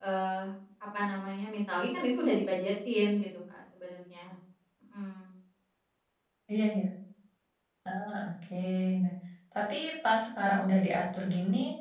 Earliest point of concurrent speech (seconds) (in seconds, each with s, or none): none